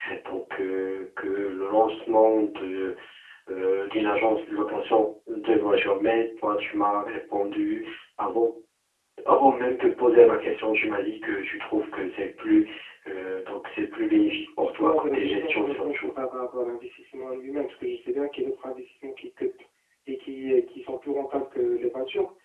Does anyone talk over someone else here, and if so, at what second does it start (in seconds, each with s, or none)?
14.6 s